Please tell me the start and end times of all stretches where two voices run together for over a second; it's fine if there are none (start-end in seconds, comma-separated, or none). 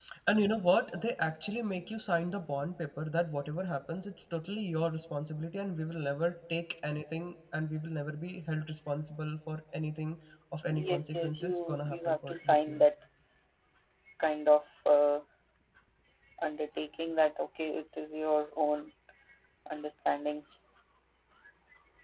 10.8-12.8